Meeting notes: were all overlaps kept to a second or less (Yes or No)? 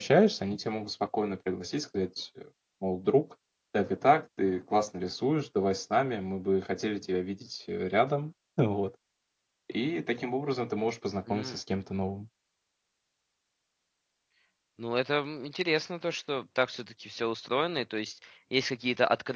Yes